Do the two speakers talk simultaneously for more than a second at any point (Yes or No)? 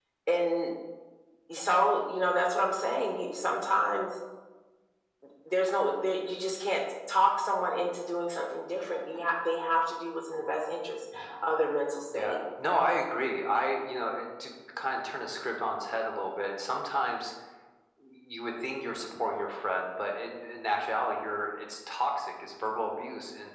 No